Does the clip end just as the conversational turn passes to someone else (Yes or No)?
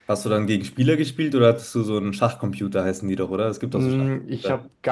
Yes